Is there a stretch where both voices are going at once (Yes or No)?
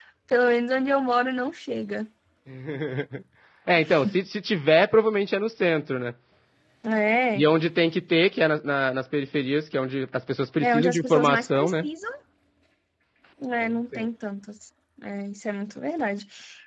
Yes